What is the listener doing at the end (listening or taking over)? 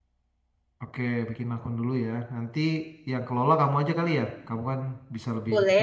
taking over